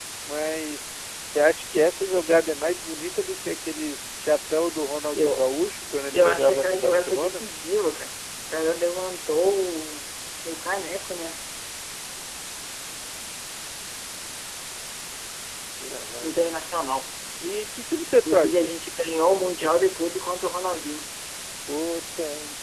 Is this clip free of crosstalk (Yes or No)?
No